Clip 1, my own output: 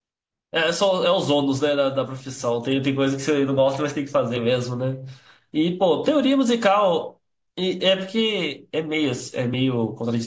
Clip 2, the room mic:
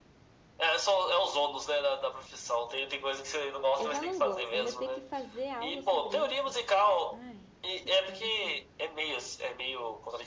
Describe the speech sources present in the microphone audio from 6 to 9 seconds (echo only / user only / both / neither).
both